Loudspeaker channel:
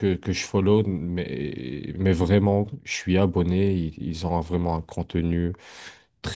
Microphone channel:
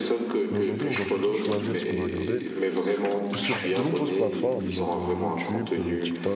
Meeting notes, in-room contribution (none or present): present